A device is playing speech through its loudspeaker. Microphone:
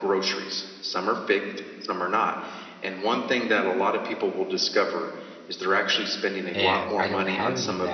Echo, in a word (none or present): present